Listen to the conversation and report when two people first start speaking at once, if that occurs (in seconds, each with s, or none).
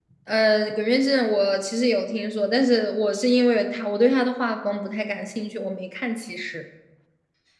none